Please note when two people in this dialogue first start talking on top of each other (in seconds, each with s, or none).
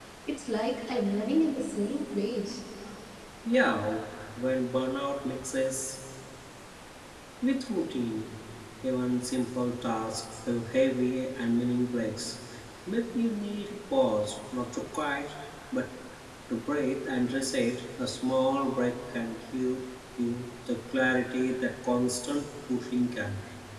none